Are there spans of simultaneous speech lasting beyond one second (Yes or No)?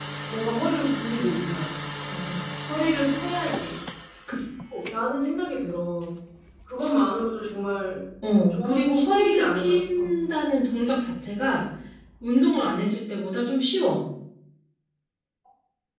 Yes